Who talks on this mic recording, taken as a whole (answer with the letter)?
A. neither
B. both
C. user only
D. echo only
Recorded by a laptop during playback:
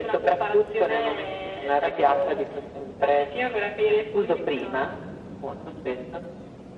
D